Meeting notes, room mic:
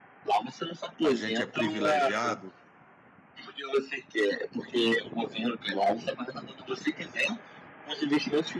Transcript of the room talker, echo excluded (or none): A gente é privilegiado